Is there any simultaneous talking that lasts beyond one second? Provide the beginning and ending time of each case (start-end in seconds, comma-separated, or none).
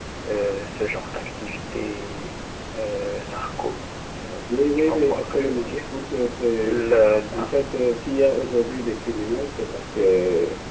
4.5-5.7